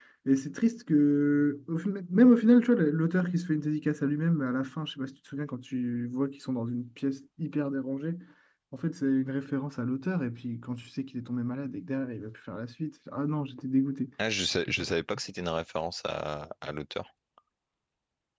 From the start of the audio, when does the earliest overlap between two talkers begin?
none

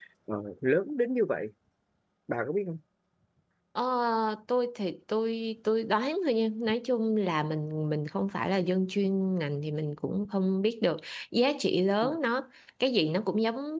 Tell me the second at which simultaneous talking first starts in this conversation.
none

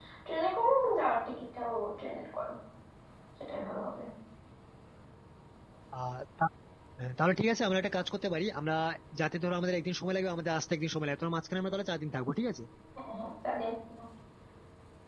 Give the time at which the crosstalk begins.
none

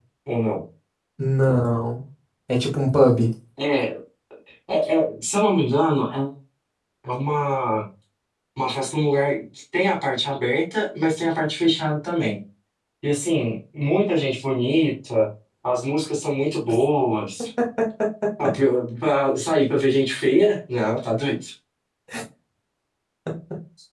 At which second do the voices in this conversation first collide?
none

